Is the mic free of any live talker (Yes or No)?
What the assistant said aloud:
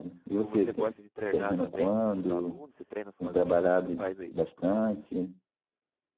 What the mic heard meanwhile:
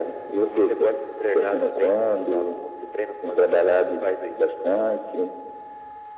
Yes